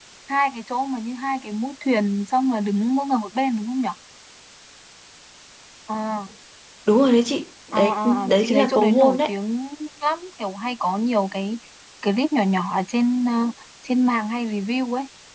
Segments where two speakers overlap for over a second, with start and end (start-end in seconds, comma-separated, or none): 7.7-9.3